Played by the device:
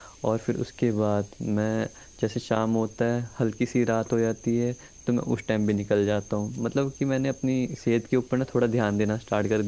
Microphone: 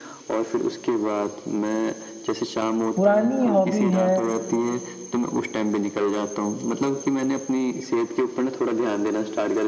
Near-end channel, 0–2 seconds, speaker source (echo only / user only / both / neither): echo only